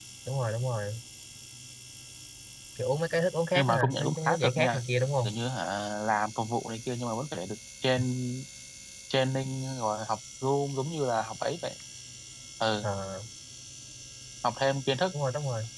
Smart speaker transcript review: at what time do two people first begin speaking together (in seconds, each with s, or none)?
3.5 s